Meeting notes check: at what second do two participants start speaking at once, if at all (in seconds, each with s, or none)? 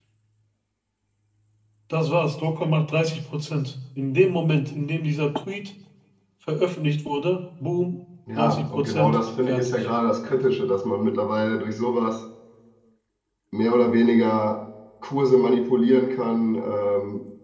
8.3 s